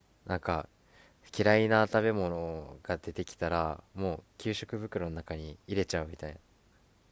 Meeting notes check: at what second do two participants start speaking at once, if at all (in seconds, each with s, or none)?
none